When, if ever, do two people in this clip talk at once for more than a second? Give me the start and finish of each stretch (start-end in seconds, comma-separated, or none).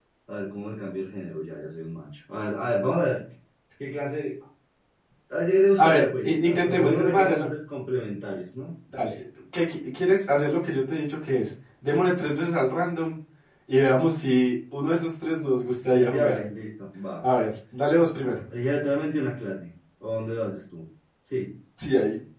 5.8-7.5